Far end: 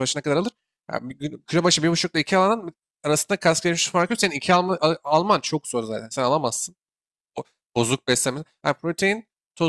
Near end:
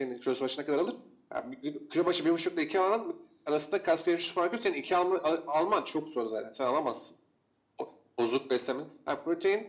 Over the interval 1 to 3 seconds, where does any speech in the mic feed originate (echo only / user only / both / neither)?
echo only